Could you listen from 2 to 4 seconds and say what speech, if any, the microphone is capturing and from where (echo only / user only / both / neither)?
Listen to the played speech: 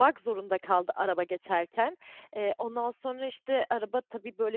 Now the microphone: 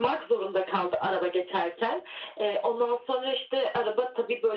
echo only